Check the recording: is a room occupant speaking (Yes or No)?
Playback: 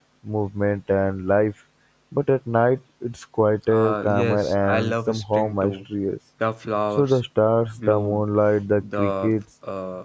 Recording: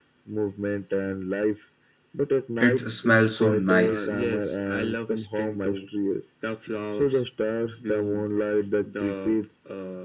Yes